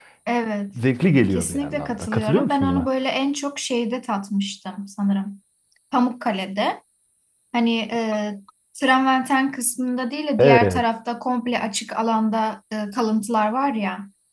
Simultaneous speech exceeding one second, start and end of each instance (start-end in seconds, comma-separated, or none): 1.3-2.9